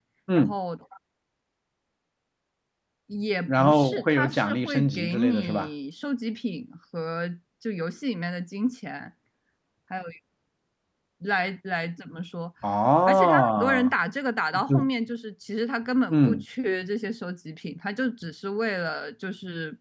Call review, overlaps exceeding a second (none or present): present